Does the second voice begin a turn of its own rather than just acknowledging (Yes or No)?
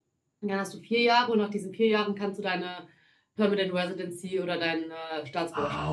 Yes